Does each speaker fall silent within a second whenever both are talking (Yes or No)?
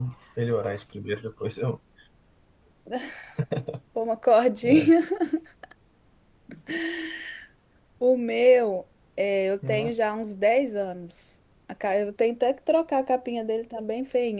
Yes